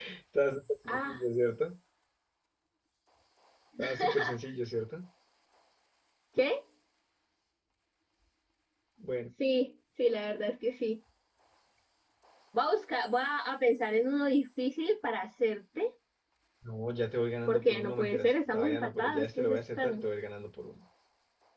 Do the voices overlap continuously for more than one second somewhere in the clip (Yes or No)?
Yes